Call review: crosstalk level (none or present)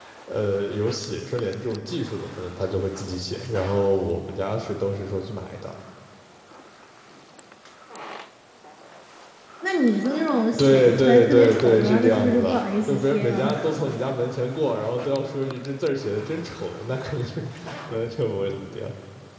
present